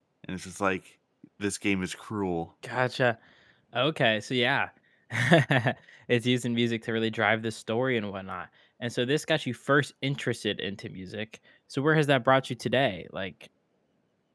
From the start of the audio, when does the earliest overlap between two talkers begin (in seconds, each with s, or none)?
none